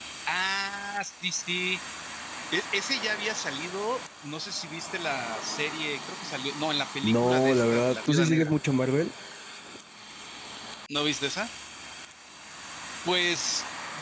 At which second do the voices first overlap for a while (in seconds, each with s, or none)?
7.0 s